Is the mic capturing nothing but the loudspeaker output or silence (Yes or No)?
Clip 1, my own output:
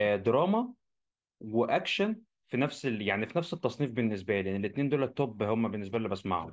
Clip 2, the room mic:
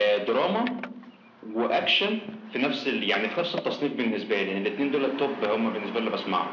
Yes